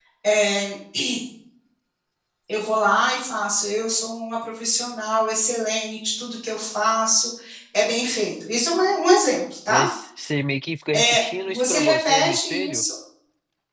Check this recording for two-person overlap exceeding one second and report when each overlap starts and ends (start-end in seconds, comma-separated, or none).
10.9-12.8